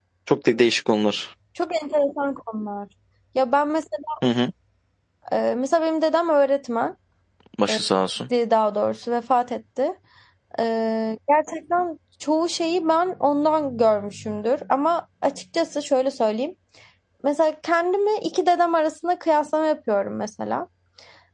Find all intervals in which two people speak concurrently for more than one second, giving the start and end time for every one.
none

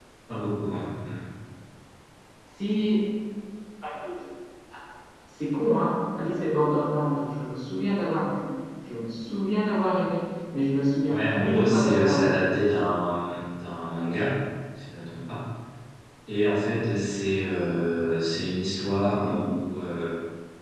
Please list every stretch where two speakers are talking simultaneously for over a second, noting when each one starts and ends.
11.1-12.3

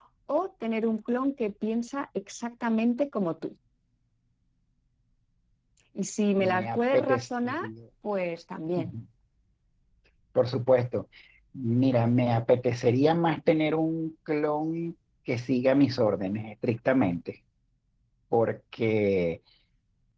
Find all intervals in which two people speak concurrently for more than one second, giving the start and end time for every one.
6.4-7.6

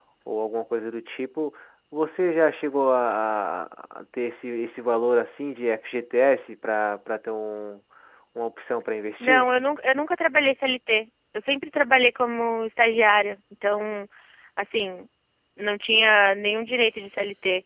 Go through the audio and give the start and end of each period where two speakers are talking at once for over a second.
none

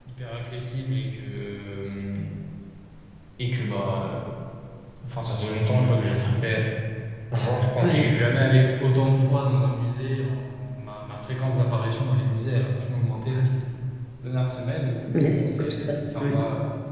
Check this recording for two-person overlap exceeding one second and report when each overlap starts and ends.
15.1-16.4

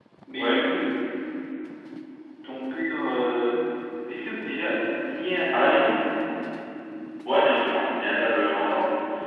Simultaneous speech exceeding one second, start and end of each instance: none

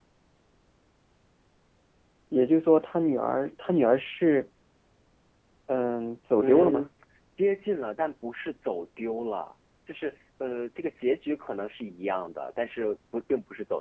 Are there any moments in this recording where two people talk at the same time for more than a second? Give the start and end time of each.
none

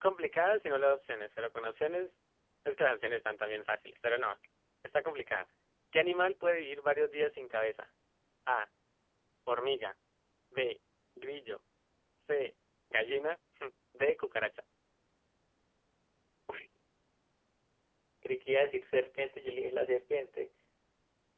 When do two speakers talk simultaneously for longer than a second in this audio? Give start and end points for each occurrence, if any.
none

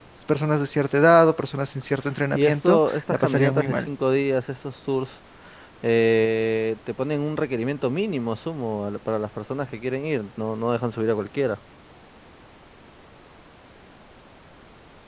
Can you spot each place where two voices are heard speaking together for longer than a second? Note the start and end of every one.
2.3-3.9

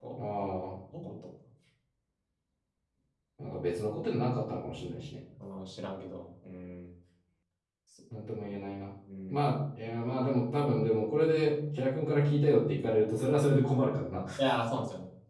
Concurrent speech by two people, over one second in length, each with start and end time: none

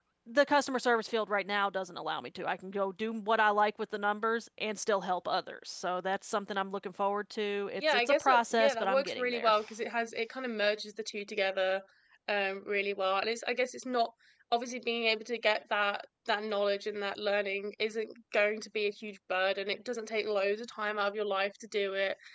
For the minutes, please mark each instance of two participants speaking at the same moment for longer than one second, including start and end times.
7.8-9.5

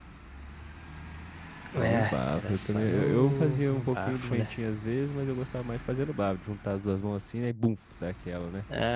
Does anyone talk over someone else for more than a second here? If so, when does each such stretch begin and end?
1.8-4.6

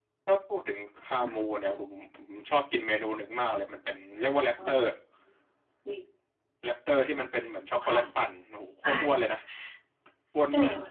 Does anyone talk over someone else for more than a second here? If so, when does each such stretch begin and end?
none

